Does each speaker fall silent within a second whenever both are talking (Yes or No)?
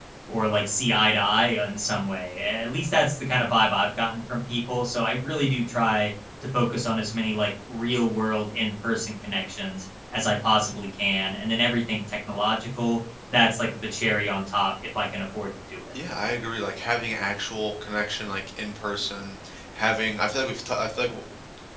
Yes